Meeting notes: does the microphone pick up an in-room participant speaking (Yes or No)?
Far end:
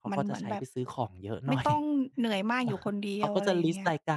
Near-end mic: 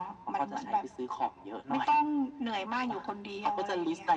No